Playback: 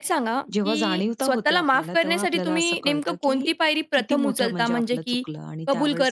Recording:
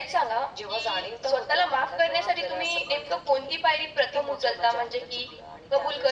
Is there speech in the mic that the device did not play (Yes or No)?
No